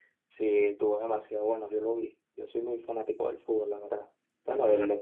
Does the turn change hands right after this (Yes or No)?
No